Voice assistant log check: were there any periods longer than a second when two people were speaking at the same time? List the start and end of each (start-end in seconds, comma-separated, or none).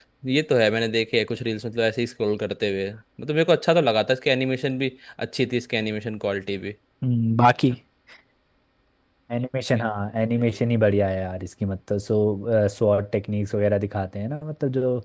none